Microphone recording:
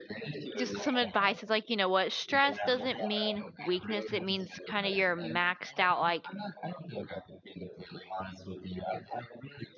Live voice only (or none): Just some advice is like, you know what? Stress doesn't mean weakness. It means kind of you're maxed out, like